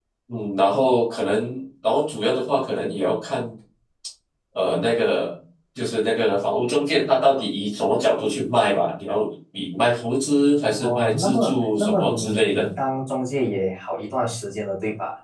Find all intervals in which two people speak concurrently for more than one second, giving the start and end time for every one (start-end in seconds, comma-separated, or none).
10.8-12.7